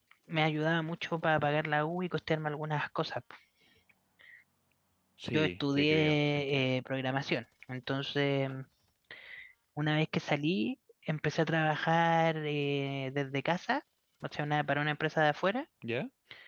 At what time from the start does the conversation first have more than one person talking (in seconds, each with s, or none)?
5.3 s